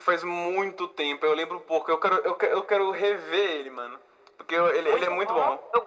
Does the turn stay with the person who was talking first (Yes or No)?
No